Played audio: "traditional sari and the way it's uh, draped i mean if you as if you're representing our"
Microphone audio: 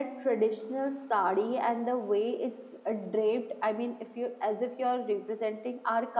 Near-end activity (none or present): none